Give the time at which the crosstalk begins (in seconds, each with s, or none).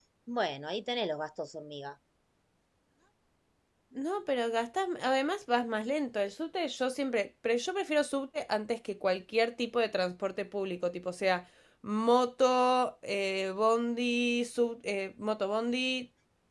none